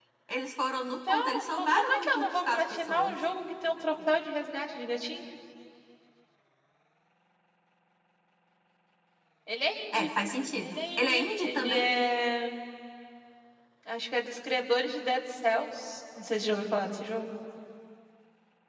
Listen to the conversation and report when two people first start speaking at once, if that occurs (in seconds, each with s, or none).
1.1 s